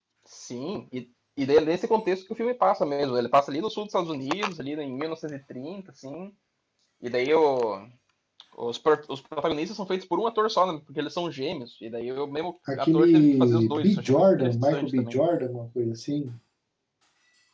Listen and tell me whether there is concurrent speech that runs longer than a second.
Yes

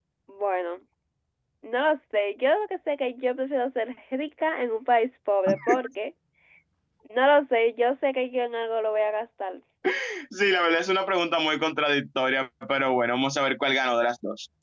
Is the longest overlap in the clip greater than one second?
No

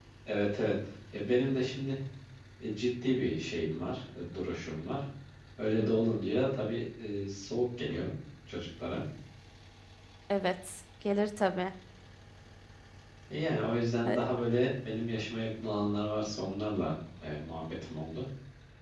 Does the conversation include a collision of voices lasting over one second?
No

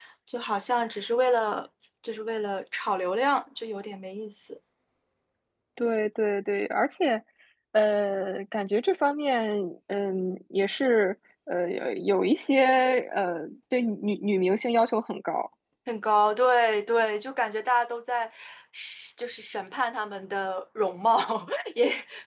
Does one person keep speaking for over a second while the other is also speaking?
No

